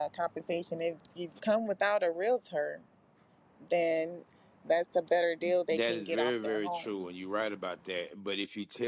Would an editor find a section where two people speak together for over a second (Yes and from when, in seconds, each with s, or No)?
Yes, from 5.7 s